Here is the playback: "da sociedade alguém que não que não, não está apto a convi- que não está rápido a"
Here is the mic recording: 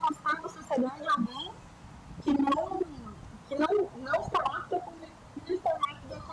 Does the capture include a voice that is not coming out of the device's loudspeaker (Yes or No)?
No